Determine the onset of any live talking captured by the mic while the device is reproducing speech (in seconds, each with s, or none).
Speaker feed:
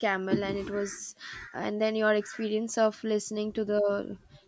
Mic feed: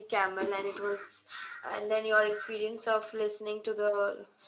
none